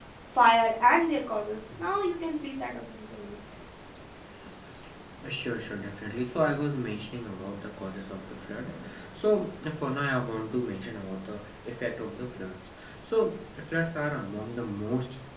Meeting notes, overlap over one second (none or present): none